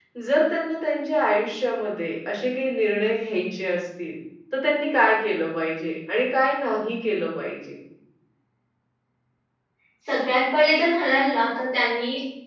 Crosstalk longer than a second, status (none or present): none